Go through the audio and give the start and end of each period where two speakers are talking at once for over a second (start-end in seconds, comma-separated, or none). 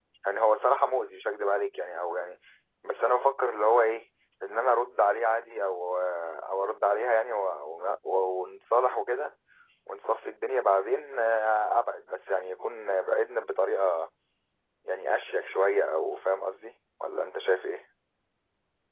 none